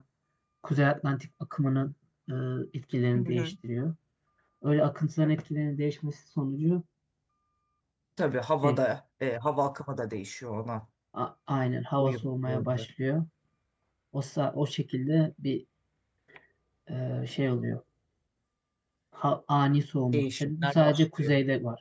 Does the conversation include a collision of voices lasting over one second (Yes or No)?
Yes